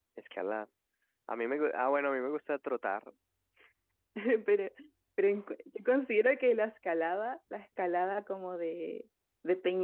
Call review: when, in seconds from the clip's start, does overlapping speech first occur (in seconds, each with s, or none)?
none